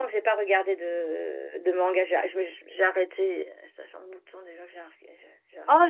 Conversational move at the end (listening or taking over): taking over